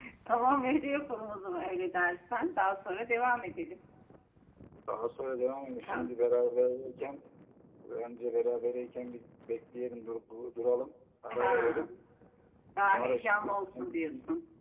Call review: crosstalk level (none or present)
present